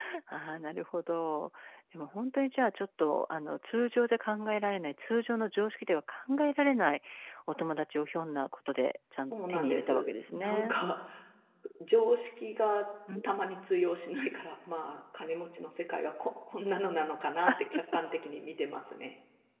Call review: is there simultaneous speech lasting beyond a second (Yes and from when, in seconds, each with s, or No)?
Yes, from 9.3 s